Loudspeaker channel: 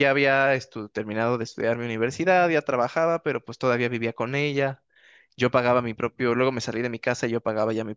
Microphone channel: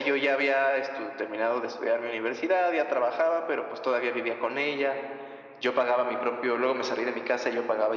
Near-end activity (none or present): none